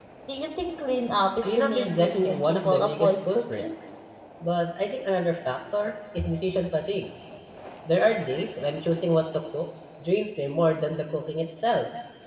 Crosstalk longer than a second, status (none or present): present